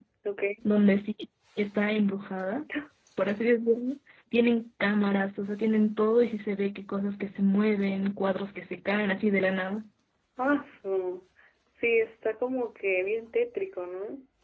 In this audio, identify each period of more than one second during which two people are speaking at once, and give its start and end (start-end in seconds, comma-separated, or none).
none